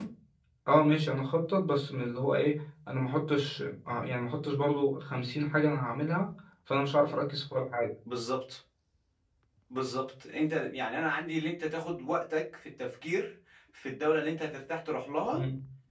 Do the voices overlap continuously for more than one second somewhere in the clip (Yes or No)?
No